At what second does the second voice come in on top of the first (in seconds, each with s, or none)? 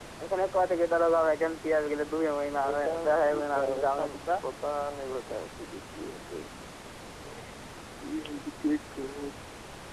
2.5 s